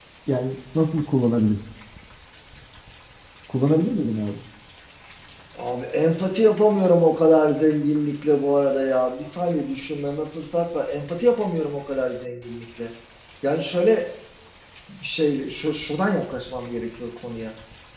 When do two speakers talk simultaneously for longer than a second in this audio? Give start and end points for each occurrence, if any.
none

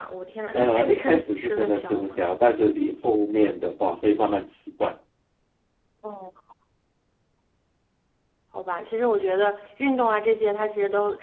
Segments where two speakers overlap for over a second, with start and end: 0.5-2.2

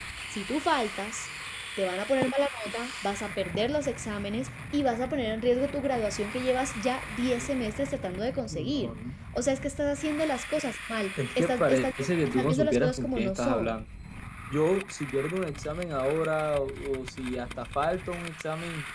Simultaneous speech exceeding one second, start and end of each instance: 11.2-13.8

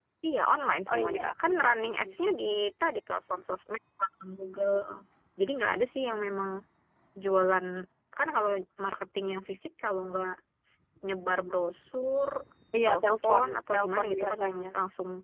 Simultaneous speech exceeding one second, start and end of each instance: 0.9-2.1, 12.8-14.7

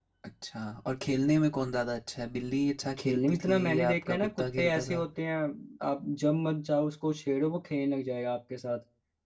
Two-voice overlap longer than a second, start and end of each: 3.0-5.0

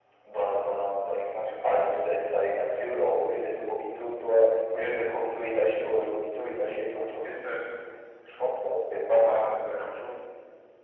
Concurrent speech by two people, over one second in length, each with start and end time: none

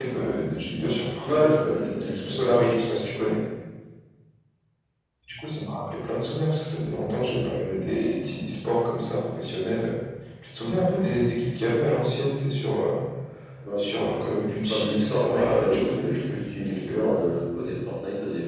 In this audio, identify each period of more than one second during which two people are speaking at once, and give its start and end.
1.3-3.1, 14.7-17.0

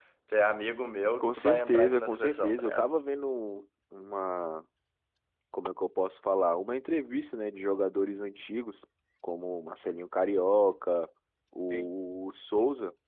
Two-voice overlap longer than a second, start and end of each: 1.2-2.9

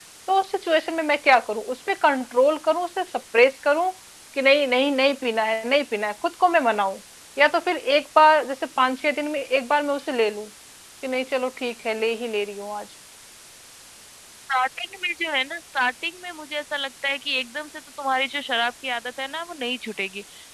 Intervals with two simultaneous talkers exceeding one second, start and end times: none

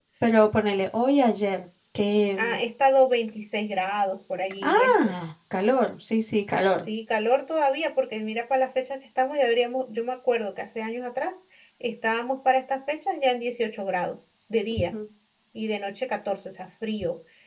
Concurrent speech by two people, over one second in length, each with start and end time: none

